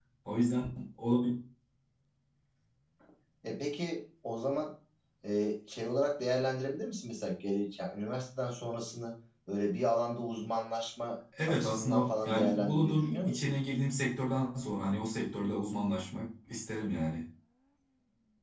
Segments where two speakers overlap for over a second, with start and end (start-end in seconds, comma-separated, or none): 11.5-13.5